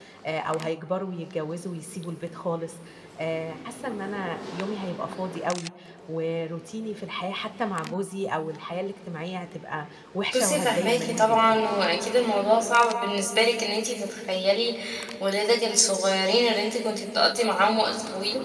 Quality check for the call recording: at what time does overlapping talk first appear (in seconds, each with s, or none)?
10.3 s